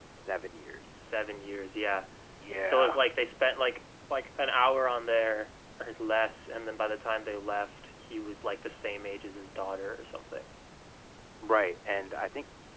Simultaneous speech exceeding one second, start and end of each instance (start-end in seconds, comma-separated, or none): none